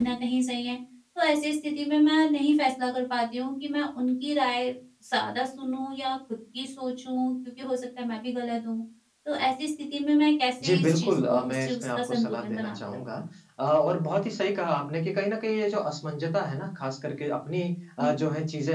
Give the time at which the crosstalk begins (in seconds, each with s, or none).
10.6 s